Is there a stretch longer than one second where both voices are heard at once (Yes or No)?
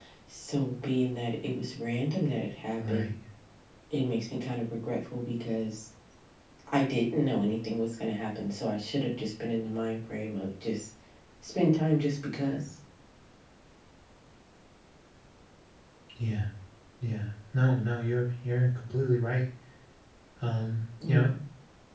No